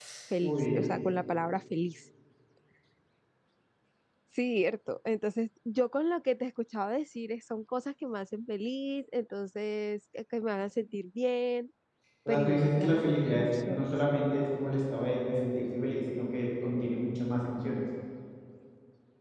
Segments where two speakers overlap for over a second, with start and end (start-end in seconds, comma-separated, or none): 12.3-13.9